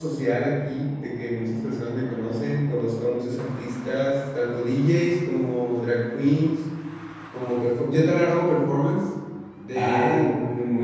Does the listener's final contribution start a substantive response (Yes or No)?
Yes